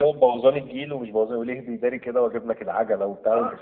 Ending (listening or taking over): taking over